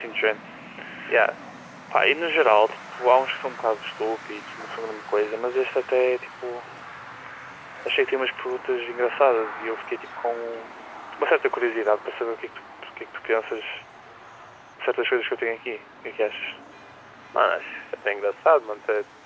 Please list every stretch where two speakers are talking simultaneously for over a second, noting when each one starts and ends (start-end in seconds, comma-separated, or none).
none